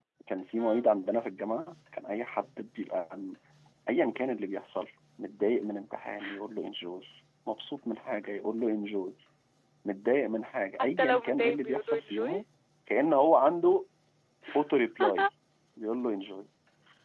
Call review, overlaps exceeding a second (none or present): present